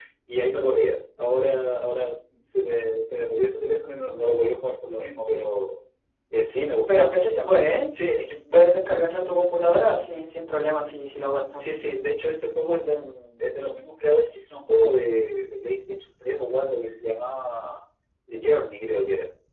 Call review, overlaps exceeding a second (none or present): none